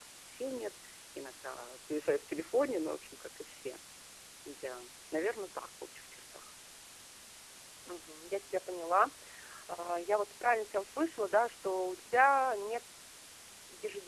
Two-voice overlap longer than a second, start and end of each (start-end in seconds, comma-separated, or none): none